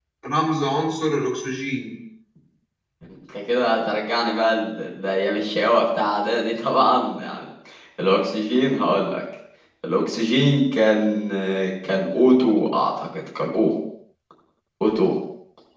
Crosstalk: none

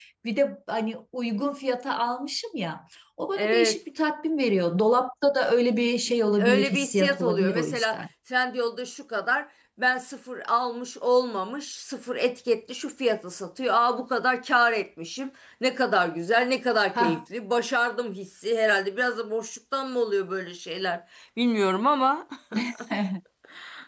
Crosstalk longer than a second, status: present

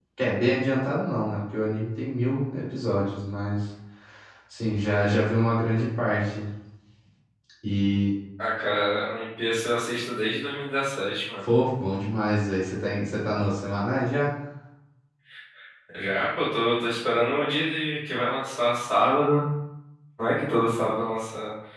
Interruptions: none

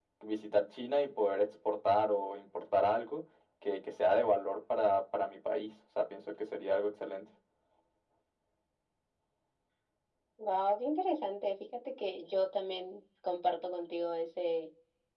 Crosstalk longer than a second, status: none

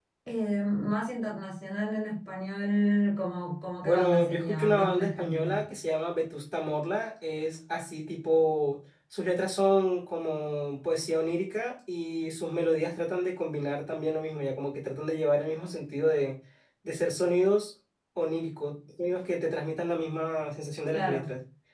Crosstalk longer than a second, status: present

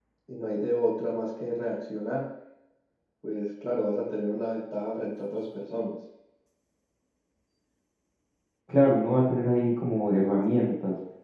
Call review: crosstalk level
none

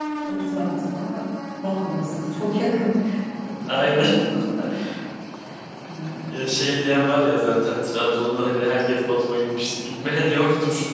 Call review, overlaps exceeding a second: none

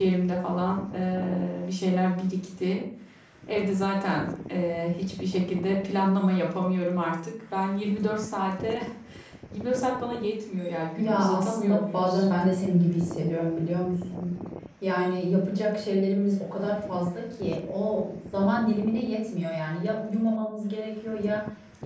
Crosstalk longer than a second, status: present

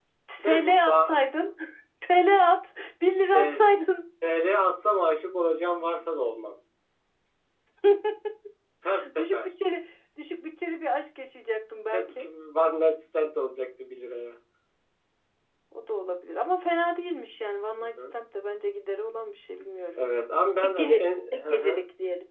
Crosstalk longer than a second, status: present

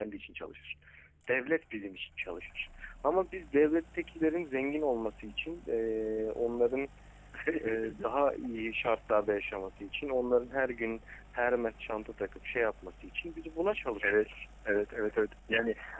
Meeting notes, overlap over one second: none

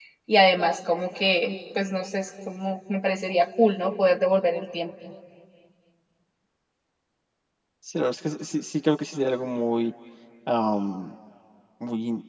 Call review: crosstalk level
none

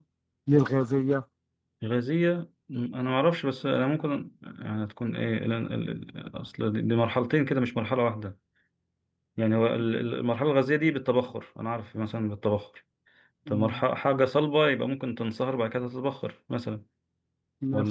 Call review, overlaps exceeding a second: none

